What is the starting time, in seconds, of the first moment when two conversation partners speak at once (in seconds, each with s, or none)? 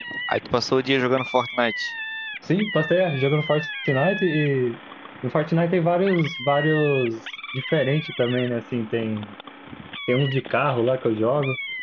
none